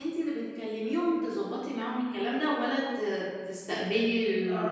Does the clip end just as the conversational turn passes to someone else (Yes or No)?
Yes